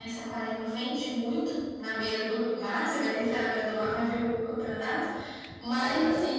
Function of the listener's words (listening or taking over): listening